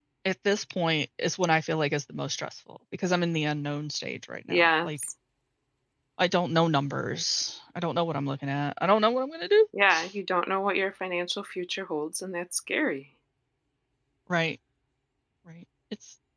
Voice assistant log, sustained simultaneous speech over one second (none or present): none